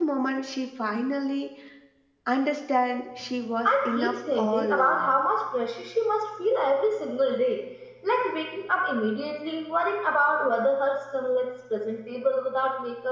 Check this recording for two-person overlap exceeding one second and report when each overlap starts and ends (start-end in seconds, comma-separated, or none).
3.6-5.1